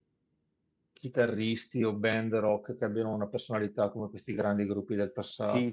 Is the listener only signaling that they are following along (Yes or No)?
No